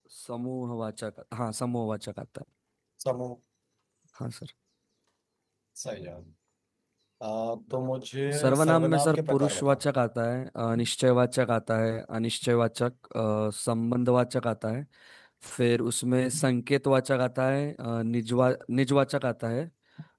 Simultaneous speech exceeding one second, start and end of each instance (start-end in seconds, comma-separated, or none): 8.4-9.8